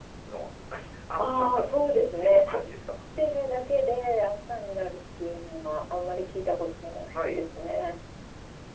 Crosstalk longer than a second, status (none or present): none